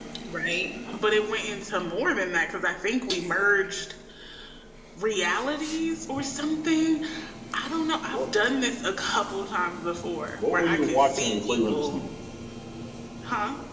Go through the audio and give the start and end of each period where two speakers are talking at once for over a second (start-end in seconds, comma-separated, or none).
10.4-12.0